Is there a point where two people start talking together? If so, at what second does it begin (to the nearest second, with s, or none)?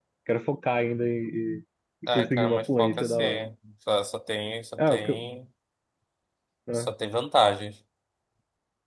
2 s